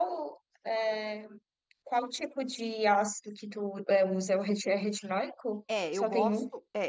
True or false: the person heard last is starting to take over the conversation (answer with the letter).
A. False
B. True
B